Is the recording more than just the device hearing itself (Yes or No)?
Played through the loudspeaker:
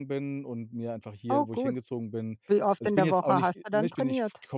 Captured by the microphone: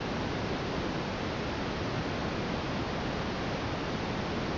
No